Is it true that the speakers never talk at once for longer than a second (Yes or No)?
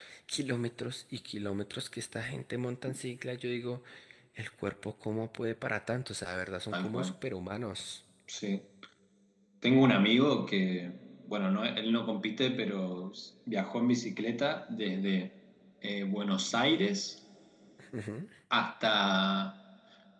Yes